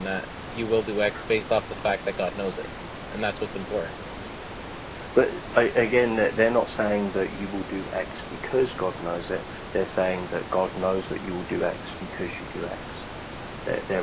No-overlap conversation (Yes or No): Yes